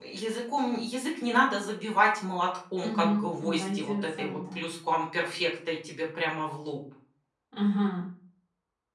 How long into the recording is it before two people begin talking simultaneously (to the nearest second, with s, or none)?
3 s